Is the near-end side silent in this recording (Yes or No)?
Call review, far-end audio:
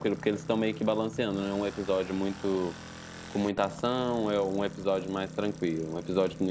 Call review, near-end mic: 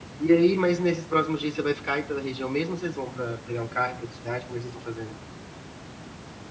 No